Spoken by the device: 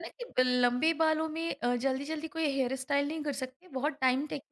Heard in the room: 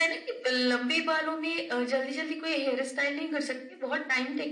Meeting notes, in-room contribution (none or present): none